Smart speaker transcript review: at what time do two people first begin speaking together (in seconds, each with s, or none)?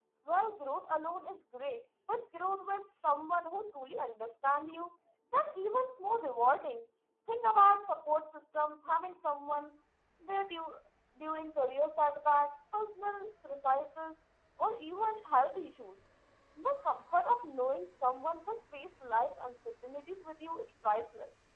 none